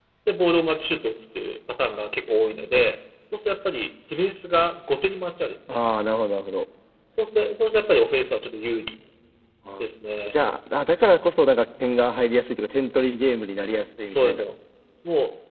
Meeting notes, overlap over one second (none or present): none